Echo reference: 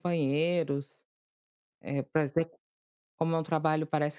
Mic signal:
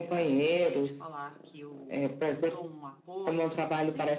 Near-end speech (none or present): present